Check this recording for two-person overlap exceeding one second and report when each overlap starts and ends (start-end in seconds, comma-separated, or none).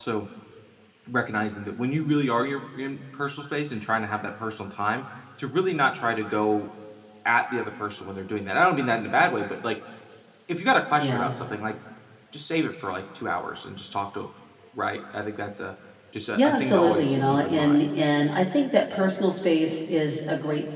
16.3-17.8